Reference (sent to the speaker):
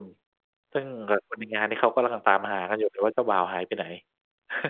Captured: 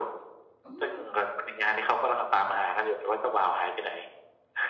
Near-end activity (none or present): present